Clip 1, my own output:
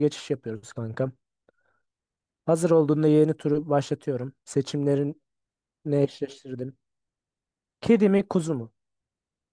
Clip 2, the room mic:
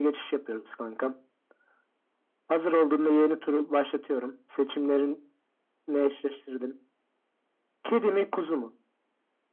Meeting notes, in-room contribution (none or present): none